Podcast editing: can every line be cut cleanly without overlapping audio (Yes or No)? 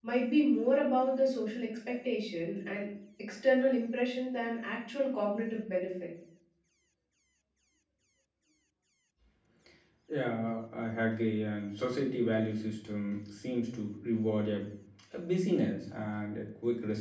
Yes